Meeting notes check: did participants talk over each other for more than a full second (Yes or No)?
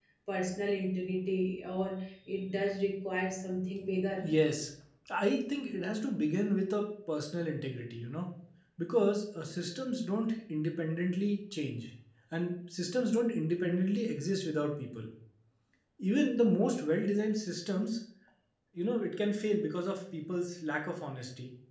No